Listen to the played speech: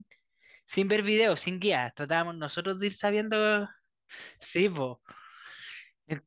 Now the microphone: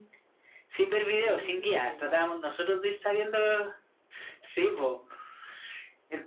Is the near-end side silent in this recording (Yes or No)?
No